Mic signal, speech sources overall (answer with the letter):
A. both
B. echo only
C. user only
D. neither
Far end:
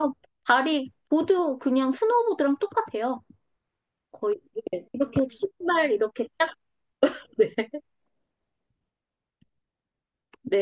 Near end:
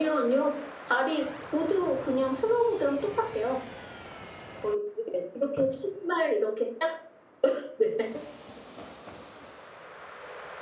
B